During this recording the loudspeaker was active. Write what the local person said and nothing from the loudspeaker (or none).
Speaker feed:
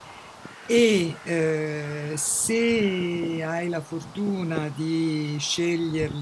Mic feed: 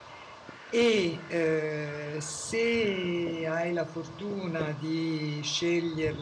none